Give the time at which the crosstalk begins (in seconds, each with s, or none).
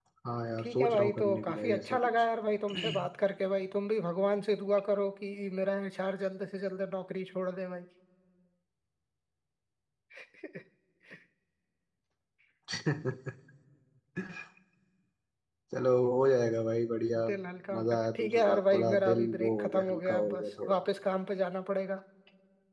0.6 s